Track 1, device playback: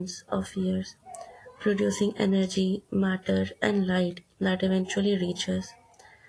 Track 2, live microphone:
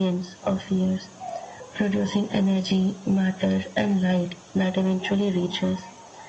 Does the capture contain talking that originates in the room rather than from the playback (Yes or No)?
No